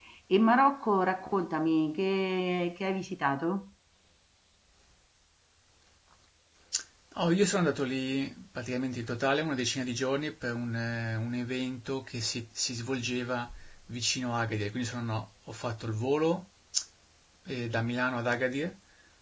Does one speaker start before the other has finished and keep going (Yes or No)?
No